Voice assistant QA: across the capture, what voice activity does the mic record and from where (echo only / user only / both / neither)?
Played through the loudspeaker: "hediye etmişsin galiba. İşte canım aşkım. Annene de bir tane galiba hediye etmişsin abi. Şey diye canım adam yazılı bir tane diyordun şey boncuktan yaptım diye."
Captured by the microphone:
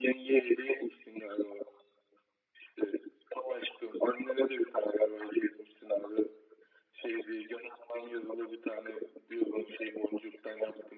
echo only